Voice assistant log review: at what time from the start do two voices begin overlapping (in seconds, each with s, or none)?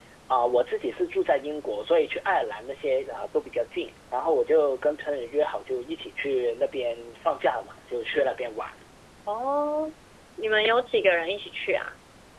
none